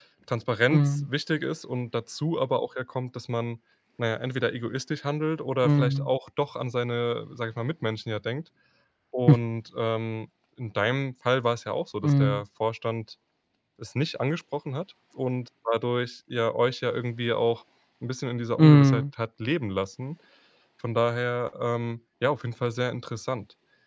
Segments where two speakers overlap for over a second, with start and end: none

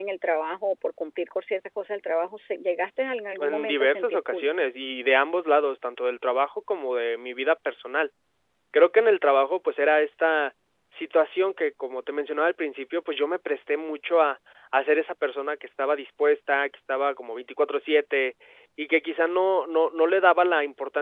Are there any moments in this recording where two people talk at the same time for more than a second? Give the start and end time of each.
3.4-4.6

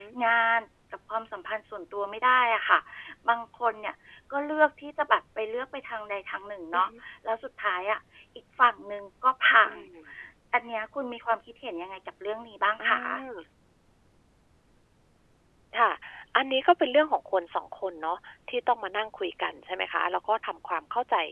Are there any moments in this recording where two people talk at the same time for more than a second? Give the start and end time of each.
none

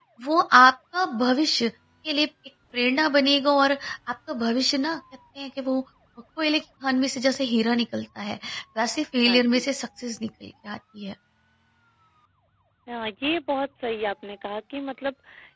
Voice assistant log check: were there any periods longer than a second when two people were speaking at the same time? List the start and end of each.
none

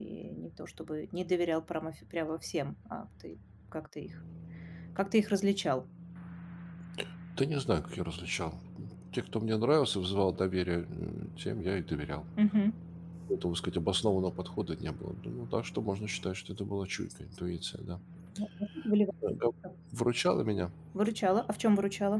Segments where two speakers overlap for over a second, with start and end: none

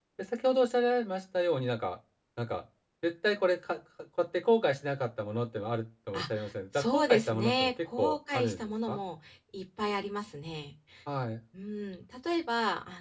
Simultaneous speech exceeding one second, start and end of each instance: 6.7-9.0

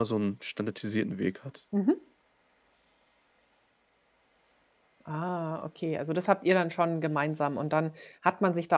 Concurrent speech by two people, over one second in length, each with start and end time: none

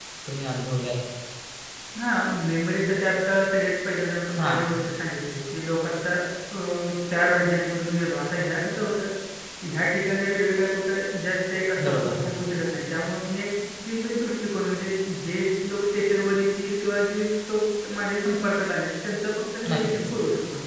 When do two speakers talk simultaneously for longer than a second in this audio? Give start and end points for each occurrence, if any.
none

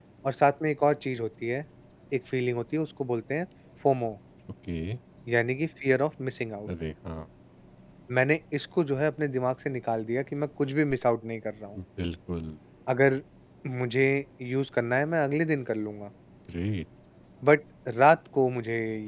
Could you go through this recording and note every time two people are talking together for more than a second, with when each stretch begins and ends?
none

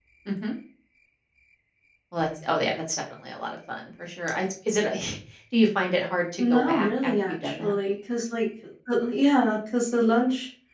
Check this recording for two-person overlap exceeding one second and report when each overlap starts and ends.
6.4-7.7

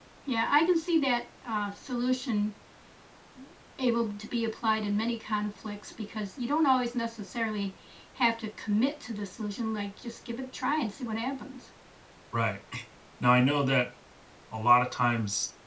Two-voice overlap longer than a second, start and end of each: none

